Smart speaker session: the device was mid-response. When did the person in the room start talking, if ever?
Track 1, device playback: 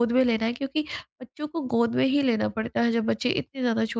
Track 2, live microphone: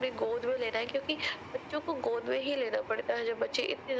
none

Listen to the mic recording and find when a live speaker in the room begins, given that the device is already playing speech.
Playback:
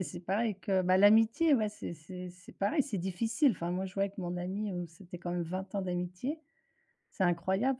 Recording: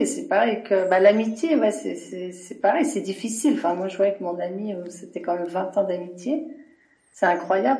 none

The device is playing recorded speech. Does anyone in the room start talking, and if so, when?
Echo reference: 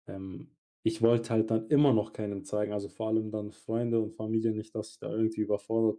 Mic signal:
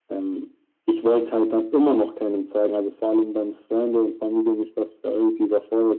none

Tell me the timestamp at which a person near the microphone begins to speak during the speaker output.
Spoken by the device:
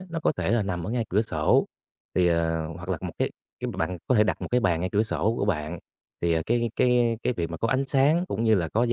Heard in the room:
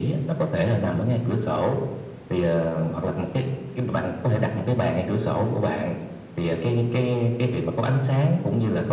none

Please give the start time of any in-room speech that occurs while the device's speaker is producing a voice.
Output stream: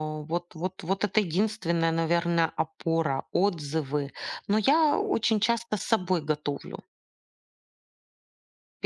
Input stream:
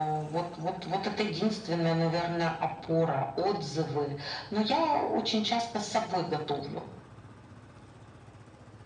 none

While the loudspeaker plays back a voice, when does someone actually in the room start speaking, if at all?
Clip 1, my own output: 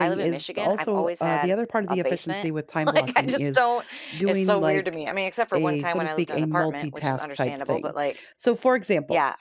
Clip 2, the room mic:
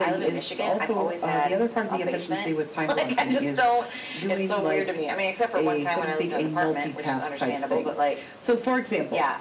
none

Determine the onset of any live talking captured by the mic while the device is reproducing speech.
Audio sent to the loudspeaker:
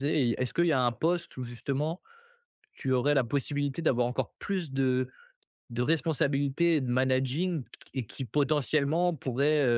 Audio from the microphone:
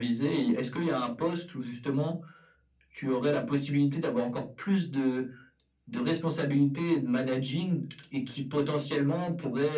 none

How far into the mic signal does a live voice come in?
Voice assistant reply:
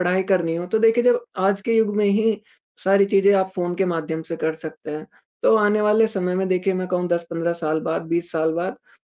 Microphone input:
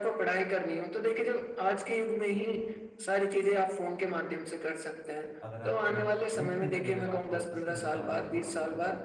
5.4 s

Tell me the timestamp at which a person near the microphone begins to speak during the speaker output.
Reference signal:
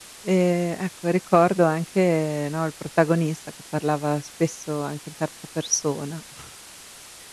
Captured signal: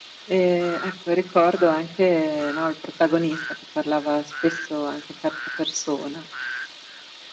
none

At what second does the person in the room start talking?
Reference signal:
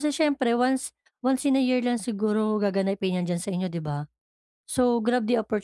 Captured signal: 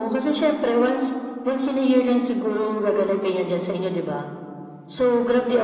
none

